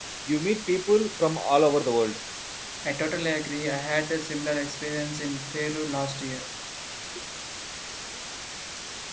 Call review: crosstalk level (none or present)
none